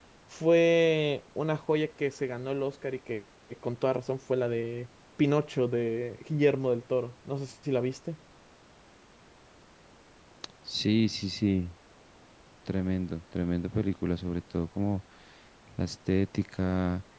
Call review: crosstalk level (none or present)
none